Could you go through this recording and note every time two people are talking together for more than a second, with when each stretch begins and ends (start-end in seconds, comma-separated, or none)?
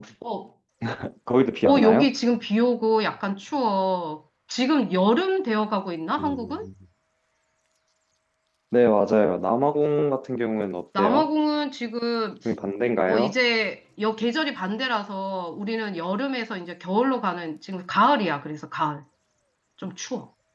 none